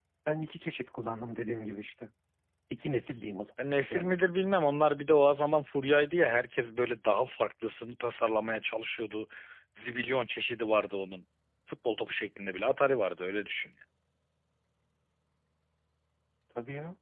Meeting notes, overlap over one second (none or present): none